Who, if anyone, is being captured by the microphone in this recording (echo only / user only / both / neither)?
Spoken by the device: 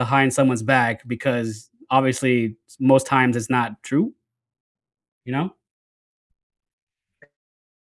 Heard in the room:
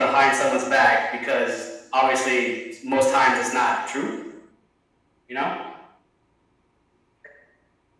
echo only